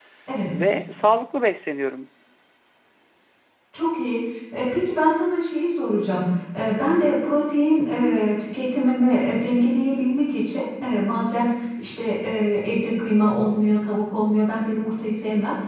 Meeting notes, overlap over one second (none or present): none